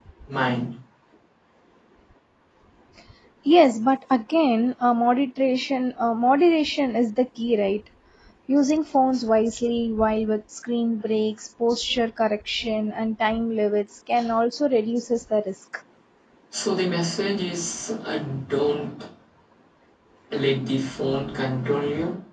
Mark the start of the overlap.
none

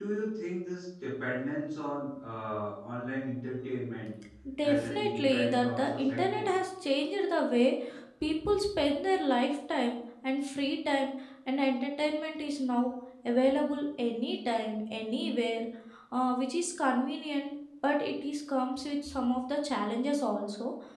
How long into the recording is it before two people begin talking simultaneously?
4.6 s

